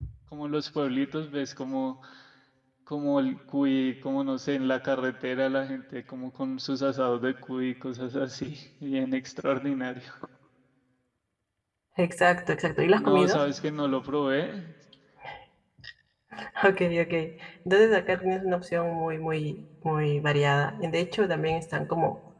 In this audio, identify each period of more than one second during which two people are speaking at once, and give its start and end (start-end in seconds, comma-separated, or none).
none